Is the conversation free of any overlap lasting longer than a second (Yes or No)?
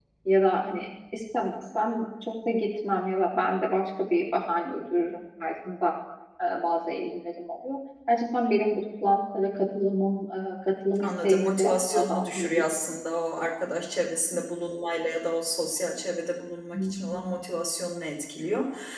No